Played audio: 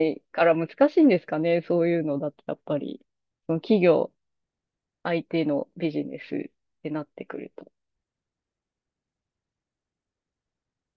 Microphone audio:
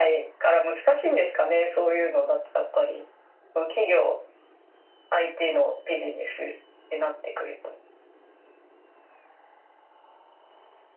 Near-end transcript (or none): none